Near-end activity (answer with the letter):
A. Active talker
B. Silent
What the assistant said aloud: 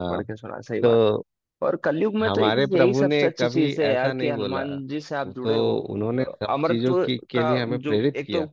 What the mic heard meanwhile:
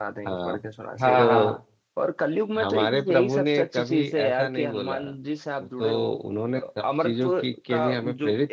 A